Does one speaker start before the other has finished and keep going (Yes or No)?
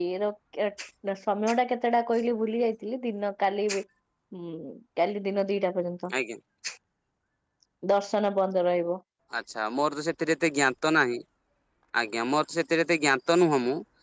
No